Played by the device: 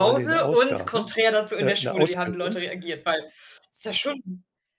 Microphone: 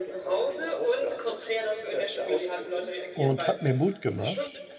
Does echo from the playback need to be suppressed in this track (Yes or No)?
Yes